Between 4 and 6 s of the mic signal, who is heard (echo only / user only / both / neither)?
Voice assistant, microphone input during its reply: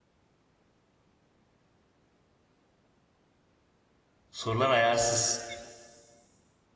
user only